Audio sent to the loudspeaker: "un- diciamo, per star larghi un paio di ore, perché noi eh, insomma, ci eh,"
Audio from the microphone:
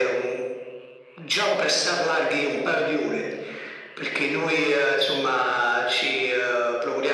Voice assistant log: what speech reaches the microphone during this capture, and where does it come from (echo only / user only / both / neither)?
echo only